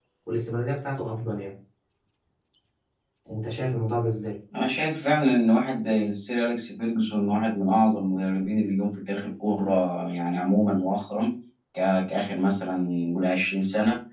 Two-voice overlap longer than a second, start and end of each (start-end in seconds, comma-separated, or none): none